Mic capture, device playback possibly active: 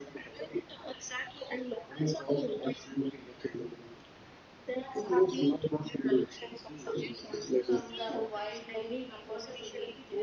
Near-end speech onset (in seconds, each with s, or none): 7.5 s